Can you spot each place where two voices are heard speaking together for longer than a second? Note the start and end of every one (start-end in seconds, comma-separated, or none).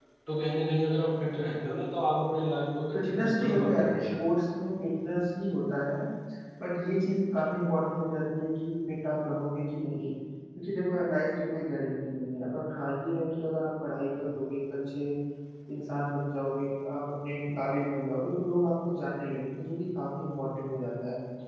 2.9-4.2